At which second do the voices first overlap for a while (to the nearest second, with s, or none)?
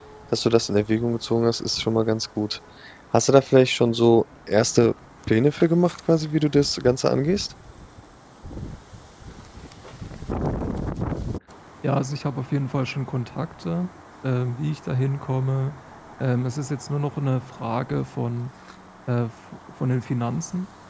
none